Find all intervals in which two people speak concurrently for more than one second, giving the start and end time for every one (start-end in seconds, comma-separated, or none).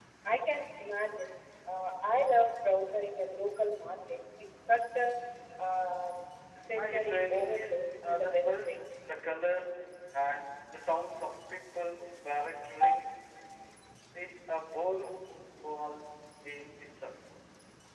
6.8-8.8